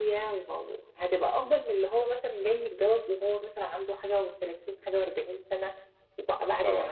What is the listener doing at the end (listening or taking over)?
listening